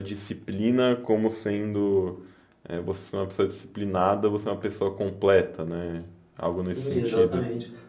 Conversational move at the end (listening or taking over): taking over